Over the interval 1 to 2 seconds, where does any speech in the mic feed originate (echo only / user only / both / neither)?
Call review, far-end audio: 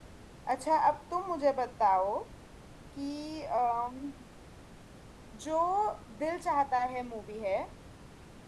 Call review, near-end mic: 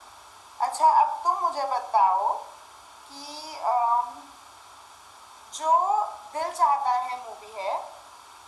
echo only